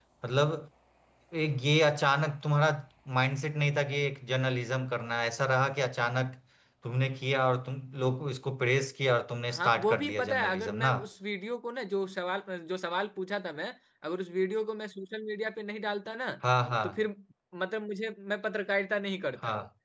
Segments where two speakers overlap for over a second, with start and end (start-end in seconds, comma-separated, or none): 9.5-10.9